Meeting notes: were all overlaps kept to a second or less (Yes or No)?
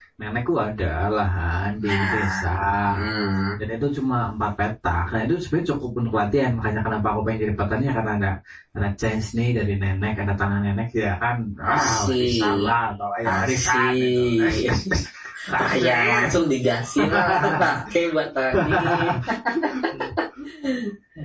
No